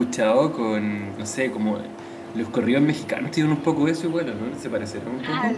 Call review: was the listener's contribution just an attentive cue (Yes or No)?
No